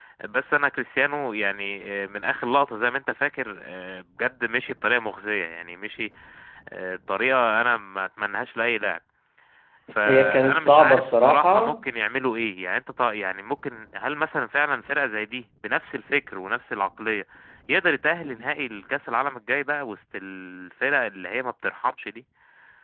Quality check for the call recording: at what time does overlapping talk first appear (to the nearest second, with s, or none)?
10 s